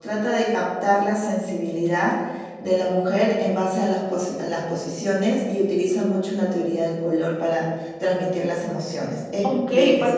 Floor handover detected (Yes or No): Yes